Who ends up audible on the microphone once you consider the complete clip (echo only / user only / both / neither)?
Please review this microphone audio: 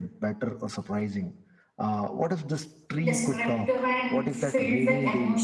both